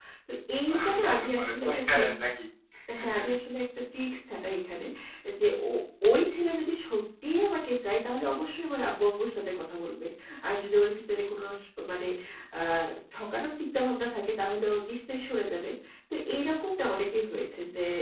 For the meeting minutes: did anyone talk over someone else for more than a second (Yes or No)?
Yes